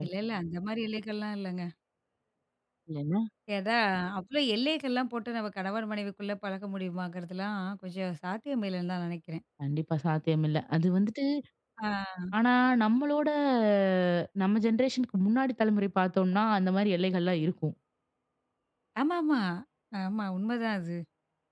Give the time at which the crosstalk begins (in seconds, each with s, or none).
none